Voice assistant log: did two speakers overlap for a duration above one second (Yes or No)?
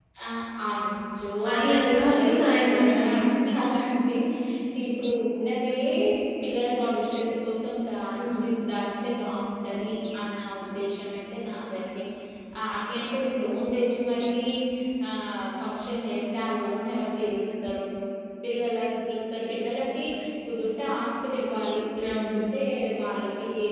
Yes